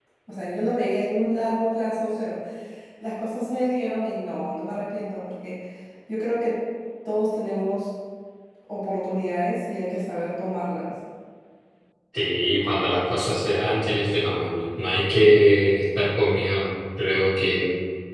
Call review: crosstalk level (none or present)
none